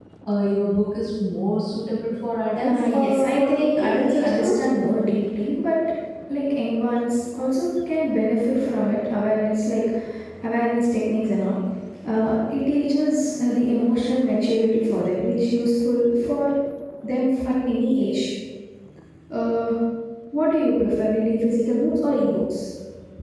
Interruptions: present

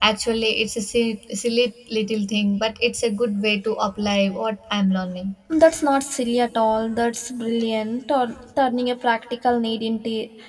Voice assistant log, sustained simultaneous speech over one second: none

